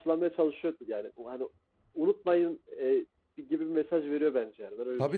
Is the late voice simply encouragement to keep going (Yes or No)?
No